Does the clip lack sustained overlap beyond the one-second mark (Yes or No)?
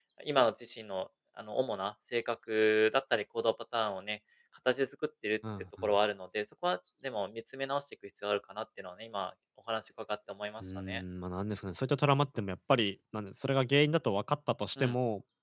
Yes